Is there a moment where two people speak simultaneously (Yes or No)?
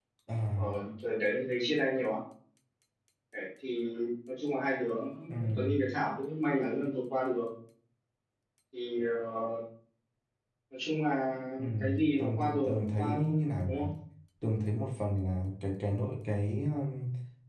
Yes